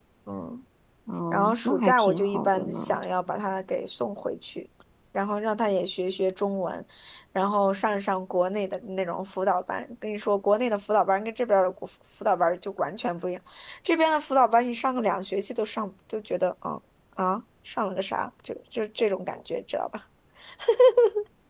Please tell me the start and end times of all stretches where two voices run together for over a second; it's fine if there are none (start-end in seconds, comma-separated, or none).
1.3-3.0